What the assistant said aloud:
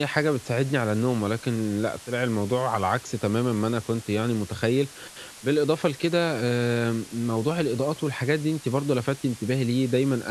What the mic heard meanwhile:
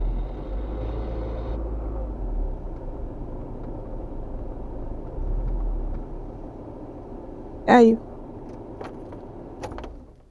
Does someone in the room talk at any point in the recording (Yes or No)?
Yes